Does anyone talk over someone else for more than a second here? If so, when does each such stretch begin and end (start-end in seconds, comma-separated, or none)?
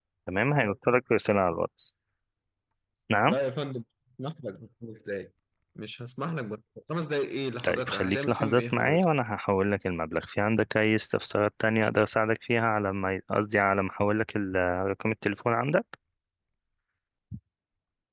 7.6-9.1